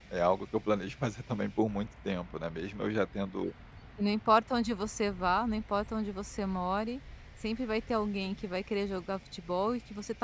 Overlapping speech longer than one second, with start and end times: none

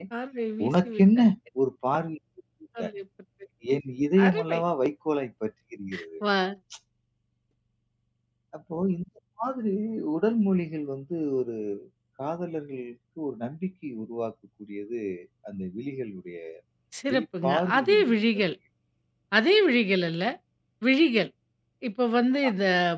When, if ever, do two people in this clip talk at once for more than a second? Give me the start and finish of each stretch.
17.1-18.5

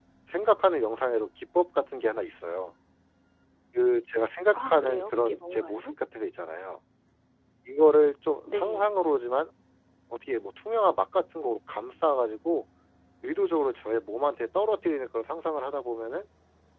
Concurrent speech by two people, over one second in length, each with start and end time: 4.5-5.9

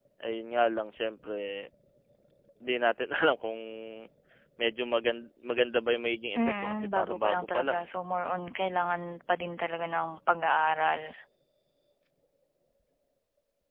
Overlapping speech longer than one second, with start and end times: 6.6-7.8

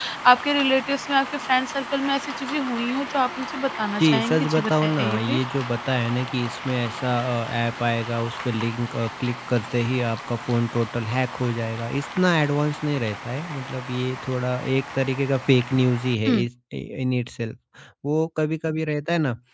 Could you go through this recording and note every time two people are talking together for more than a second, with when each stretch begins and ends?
4.0-5.4

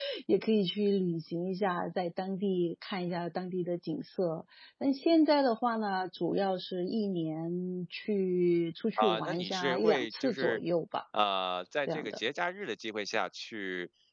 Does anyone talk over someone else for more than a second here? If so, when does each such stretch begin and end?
9.0-10.6

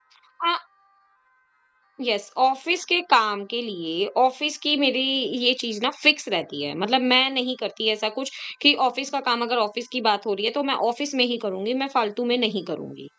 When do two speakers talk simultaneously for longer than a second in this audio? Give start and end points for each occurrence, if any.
none

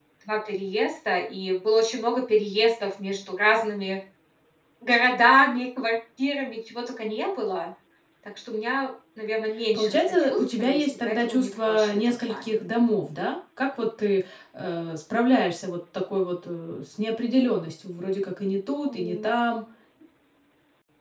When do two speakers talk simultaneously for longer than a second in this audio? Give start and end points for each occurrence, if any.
9.7-12.3

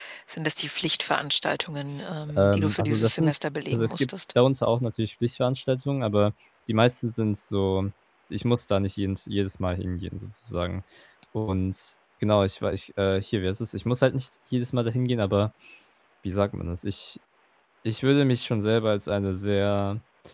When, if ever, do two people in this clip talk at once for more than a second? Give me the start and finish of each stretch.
2.4-4.3

